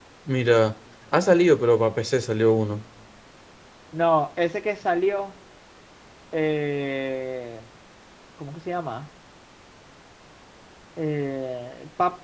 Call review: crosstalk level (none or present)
none